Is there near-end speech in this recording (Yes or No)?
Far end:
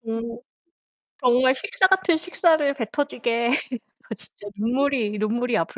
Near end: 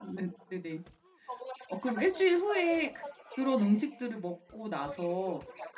Yes